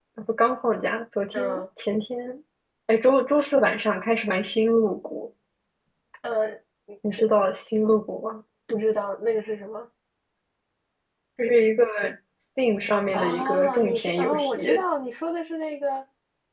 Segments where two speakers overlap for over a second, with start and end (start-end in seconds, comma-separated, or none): 13.1-14.6